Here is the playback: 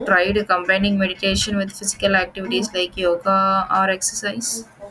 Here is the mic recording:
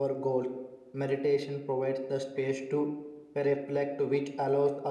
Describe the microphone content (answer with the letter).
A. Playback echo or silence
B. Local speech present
B